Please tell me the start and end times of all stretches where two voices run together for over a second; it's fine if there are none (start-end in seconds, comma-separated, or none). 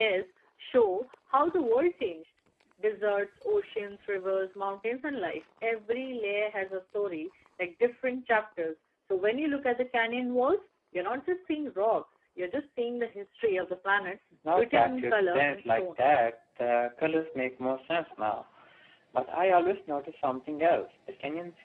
14.5-15.9